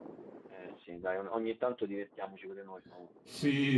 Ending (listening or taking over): taking over